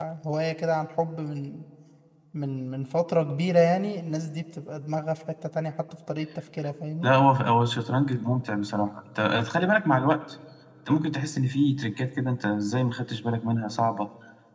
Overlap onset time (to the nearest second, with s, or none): none